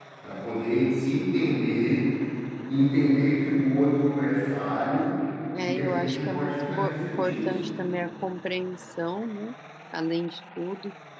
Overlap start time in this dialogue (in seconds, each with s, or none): 5.5 s